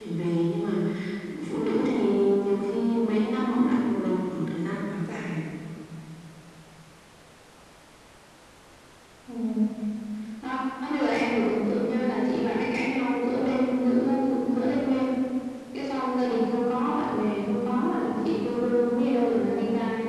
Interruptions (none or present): none